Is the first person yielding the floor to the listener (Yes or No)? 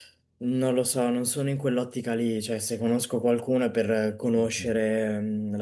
No